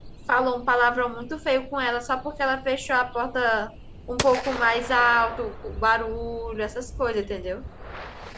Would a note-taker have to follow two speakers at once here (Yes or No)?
No